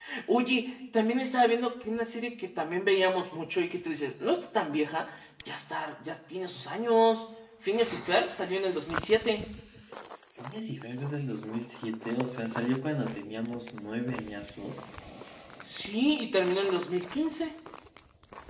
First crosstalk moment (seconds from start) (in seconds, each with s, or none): none